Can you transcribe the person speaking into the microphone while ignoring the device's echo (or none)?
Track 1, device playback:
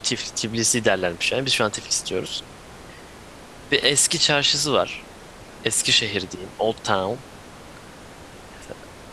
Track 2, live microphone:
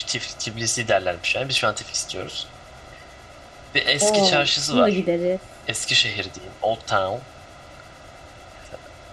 Aa, kışın da gideriz.